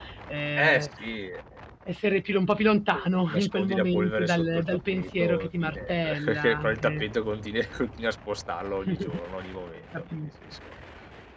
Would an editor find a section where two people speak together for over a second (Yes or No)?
Yes